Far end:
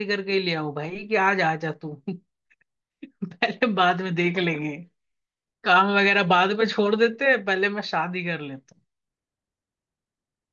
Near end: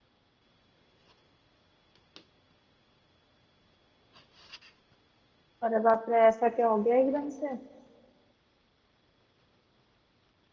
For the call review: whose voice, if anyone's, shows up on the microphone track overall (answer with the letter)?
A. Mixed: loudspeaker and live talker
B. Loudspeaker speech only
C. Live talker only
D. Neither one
C